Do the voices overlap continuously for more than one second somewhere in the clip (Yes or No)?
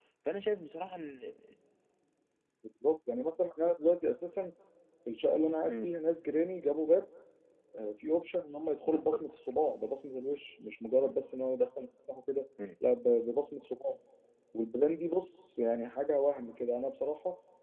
No